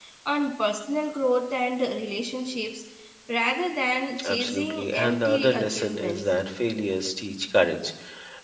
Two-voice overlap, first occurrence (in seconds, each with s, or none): 4.2 s